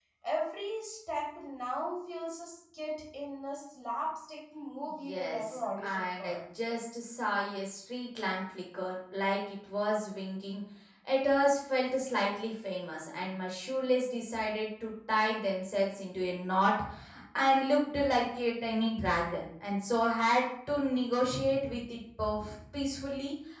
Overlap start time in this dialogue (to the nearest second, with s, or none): 5 s